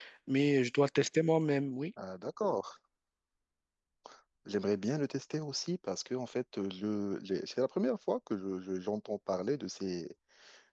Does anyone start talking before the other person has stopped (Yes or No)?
No